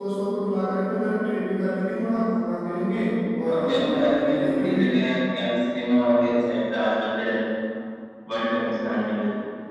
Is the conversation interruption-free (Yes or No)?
No